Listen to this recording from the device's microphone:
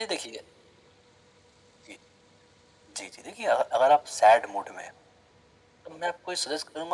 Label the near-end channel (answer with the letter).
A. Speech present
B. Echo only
B